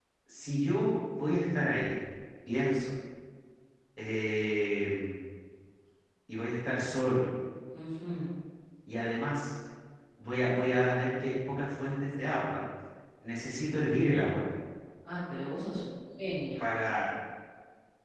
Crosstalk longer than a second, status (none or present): none